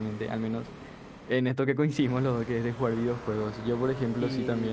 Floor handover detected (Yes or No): No